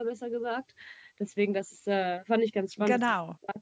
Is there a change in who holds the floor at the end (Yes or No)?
No